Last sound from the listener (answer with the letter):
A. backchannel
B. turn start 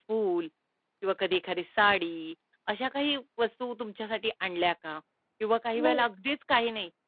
A